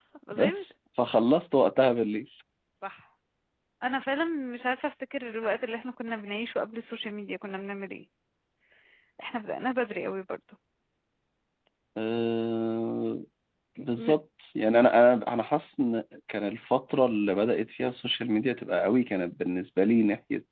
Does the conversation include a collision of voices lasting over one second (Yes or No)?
No